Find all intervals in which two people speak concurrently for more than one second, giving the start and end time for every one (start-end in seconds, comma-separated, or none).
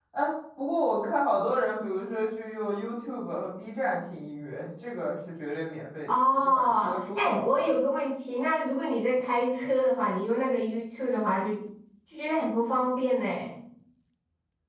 6.1-7.6